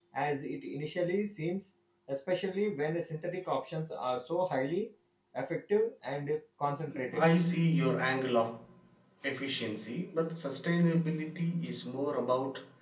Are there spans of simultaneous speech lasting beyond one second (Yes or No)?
No